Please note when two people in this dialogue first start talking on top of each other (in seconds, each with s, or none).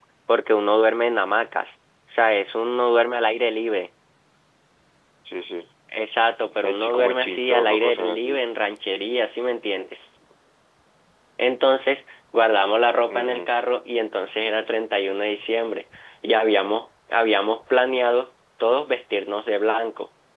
6.6 s